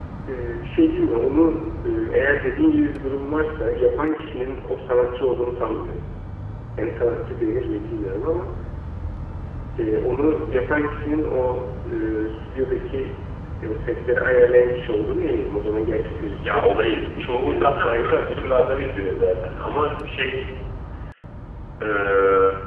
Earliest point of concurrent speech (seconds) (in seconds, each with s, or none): 16.4 s